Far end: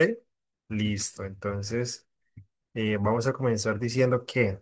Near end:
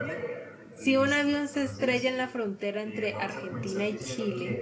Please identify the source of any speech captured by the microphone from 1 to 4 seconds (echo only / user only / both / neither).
both